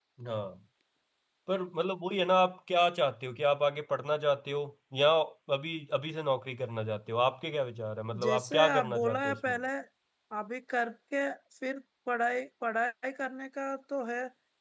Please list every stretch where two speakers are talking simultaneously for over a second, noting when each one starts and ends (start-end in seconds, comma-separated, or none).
8.2-9.6